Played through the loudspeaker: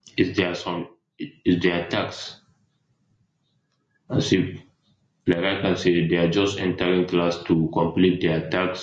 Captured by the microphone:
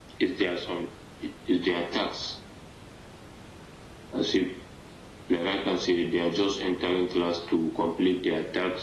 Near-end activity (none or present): none